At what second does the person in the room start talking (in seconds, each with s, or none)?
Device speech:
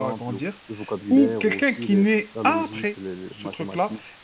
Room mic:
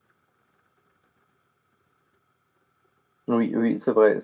3.3 s